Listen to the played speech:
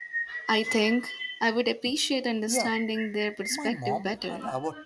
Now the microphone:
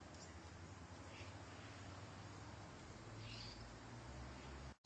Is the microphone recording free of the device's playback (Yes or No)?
Yes